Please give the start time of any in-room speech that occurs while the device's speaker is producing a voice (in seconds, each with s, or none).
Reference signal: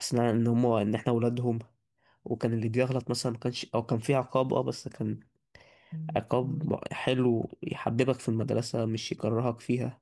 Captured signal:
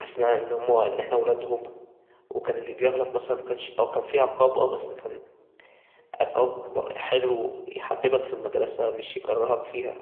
none